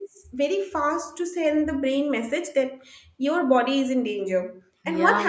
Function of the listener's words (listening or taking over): listening